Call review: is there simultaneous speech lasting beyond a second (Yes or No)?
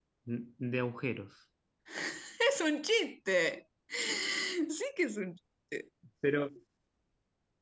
No